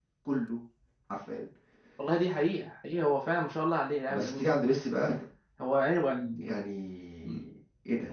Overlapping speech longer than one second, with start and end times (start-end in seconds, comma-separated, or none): none